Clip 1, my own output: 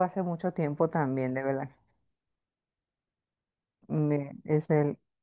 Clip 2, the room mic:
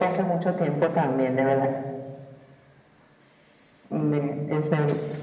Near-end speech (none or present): none